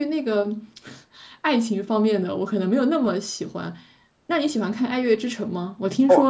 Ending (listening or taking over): listening